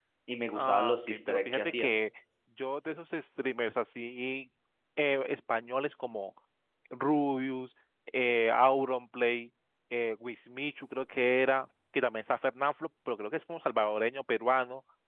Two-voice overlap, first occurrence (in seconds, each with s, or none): 0.5 s